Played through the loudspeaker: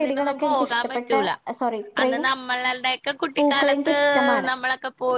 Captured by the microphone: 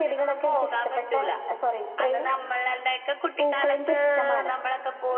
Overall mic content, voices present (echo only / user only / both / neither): echo only